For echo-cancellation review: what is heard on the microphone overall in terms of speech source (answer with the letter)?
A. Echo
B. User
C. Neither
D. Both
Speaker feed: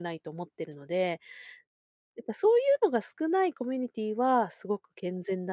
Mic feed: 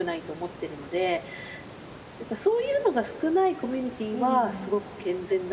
D